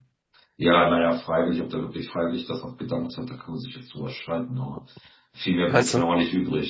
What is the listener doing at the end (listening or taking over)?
listening